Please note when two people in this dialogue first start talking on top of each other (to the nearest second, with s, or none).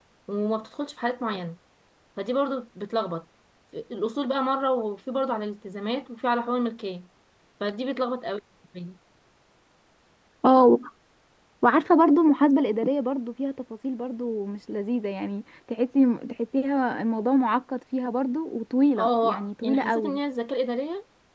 19 s